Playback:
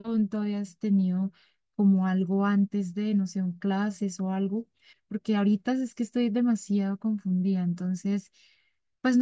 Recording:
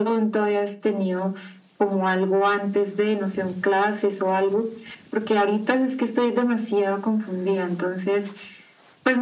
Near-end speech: none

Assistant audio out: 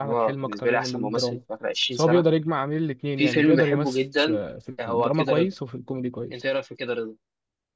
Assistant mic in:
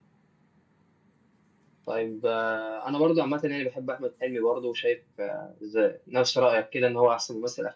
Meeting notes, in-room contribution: present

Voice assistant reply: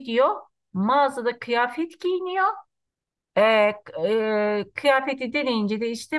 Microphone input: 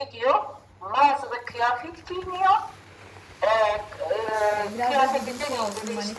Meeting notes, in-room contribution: present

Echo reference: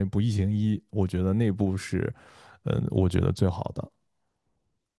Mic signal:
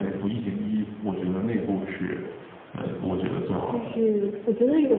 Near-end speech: present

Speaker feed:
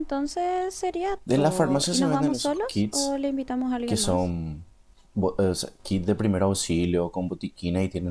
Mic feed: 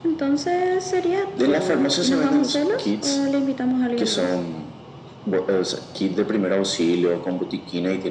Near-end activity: none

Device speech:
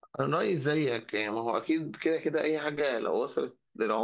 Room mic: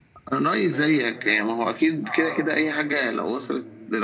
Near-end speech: present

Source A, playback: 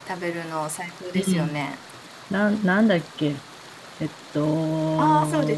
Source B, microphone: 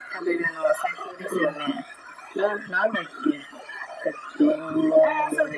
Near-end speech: none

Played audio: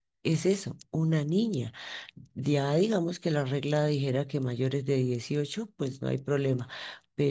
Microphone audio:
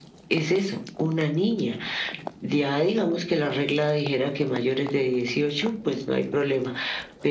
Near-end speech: none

